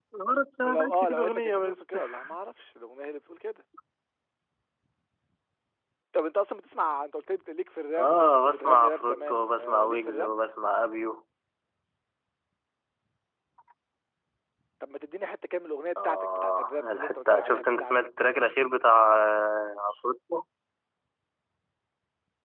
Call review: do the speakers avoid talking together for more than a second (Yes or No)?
No